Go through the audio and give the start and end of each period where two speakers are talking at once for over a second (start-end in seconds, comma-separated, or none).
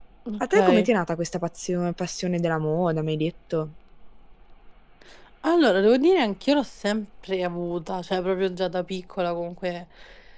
none